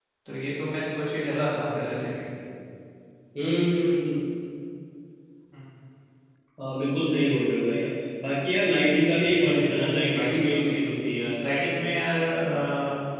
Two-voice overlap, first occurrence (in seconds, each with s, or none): 9.4 s